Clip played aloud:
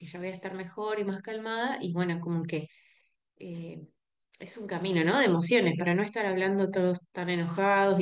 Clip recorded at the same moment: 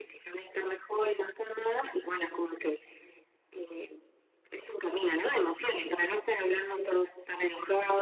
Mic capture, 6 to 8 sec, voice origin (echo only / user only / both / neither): echo only